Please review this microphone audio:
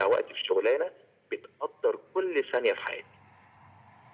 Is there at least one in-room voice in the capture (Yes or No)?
No